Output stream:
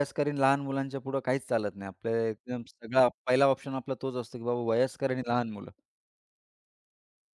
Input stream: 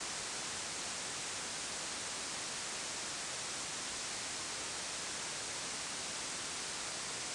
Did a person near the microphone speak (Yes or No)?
No